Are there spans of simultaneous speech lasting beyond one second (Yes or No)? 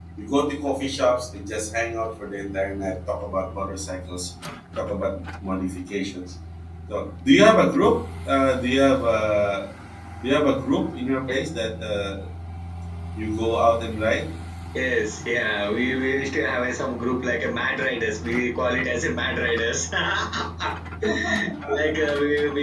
No